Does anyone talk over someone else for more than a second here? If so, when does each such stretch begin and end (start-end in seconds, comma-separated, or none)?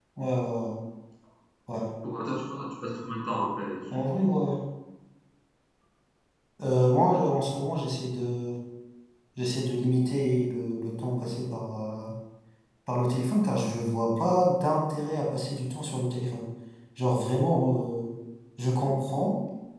none